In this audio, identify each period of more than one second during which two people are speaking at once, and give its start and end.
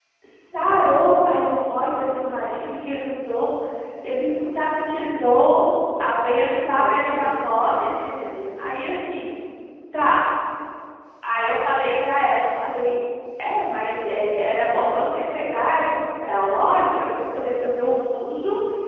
6.6-7.9

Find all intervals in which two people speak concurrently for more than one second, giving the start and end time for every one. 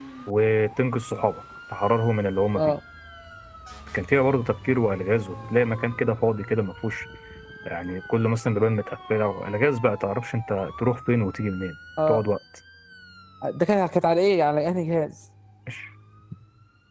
none

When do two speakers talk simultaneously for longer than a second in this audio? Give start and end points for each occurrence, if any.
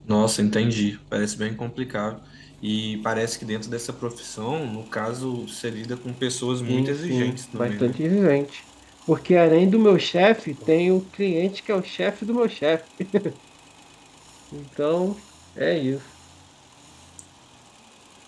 6.7-8.0

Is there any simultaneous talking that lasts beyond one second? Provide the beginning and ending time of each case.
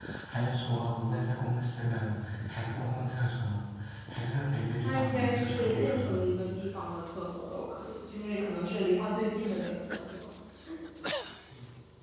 4.8-6.2

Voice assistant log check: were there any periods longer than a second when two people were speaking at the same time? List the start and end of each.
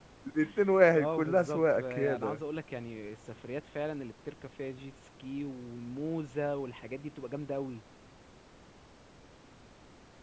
0.9-2.4

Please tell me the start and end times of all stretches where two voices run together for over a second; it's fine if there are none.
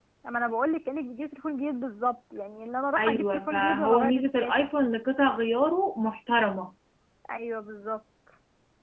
3.0-4.7

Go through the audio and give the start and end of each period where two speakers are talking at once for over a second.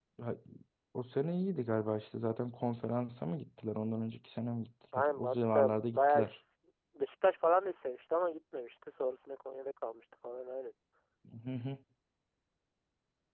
5.1-6.3

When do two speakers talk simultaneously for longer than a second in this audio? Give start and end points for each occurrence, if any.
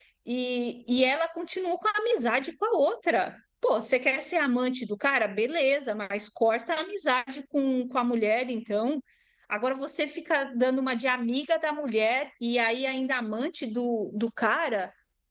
none

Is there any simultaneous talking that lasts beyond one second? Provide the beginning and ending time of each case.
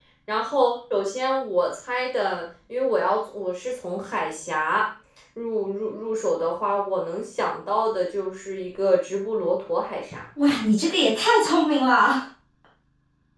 none

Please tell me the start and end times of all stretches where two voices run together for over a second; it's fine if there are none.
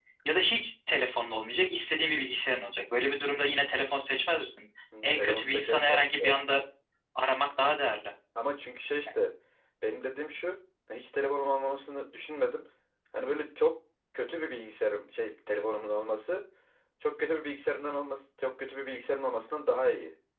5.0-6.5

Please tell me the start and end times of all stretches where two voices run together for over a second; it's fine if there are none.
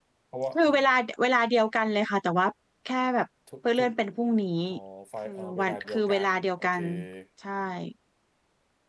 5.2-6.8

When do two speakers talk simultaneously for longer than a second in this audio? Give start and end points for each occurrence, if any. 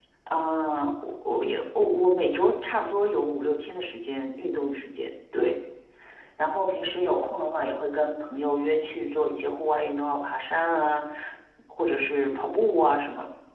none

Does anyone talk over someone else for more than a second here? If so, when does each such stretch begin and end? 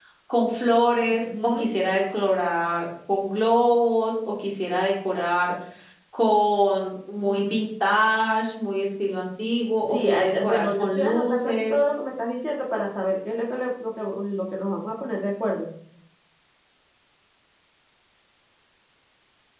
9.9-11.8

